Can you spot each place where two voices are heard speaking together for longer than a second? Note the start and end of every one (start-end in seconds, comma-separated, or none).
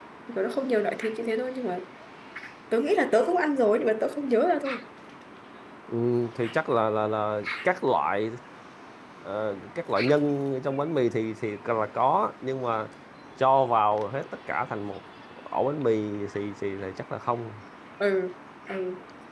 none